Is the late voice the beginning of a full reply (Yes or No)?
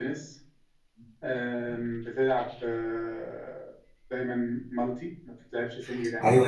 Yes